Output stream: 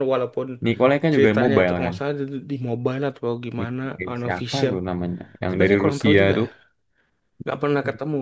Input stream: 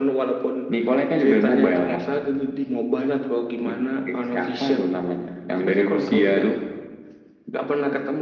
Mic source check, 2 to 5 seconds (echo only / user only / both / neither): echo only